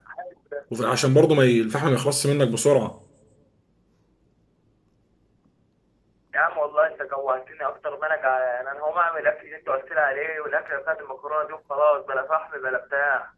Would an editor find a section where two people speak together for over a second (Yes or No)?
No